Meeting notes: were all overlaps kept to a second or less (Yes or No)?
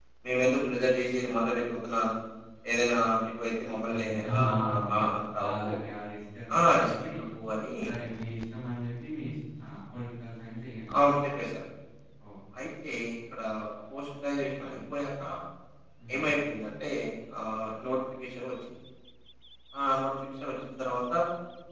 No